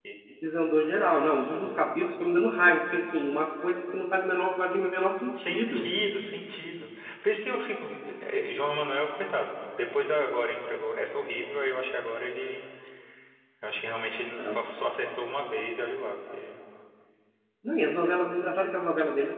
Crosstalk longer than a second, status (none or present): none